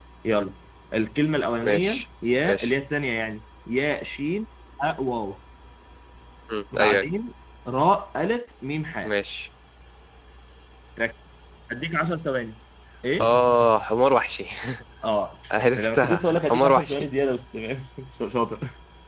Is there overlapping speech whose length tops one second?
Yes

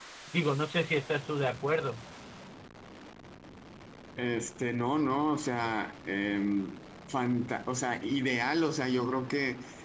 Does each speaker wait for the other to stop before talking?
Yes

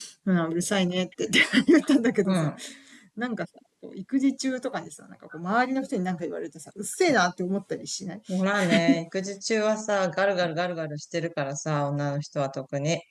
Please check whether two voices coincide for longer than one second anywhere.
No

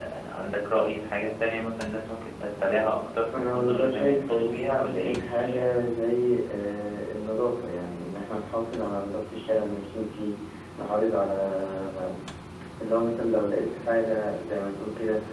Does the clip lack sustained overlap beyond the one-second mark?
No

